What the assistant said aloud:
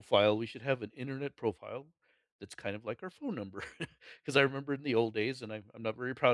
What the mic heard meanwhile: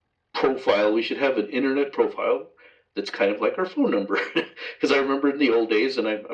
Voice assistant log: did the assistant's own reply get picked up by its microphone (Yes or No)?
Yes